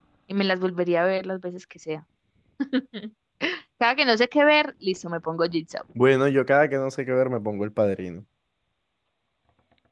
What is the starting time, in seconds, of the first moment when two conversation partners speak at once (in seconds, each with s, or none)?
none